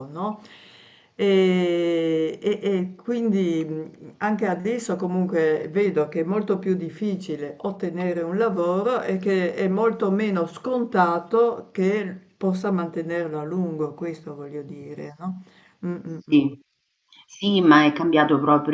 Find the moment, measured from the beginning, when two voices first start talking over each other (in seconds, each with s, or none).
none